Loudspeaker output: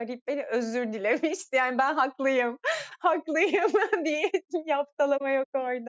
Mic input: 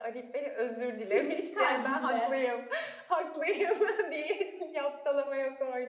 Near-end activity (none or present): present